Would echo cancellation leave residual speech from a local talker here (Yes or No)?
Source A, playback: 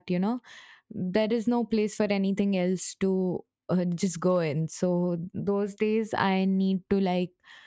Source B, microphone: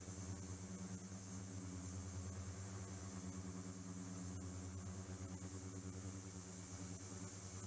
No